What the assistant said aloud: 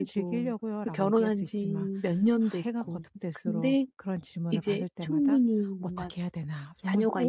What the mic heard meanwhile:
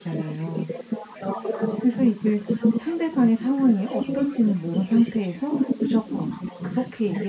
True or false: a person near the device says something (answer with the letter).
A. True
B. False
A